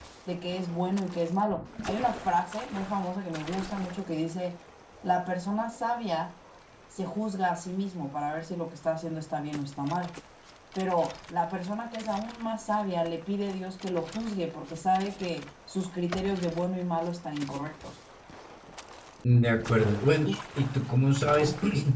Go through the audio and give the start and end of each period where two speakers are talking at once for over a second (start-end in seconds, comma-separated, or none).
none